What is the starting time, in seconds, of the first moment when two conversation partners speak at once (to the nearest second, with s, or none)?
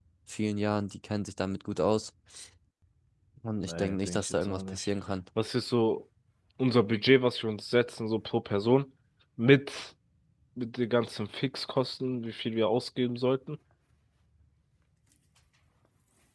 4 s